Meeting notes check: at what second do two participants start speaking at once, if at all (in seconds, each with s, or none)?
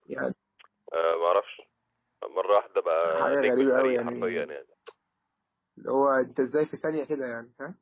3.0 s